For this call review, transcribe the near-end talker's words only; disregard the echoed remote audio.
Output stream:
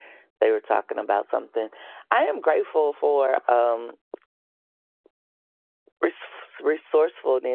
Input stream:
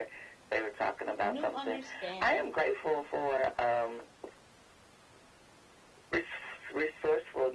new understanding.

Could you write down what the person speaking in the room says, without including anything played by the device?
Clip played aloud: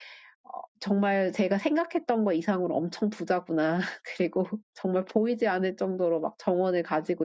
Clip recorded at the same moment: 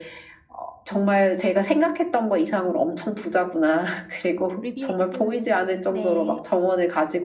리뷰해 주세요. 네,

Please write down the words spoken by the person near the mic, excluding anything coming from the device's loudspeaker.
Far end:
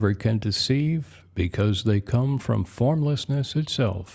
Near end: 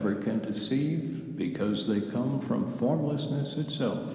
none

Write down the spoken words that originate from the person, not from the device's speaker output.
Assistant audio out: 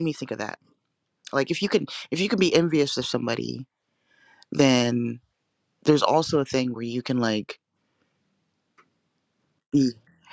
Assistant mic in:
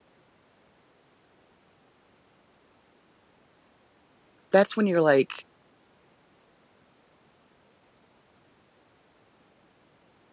that's when you're like

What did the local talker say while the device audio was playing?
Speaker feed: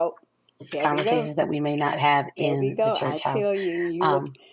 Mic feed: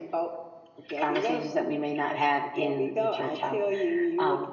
none

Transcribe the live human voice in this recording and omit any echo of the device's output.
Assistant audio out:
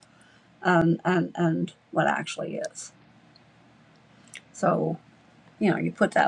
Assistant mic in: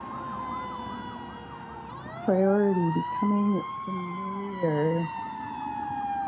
a priority, becoming familiar

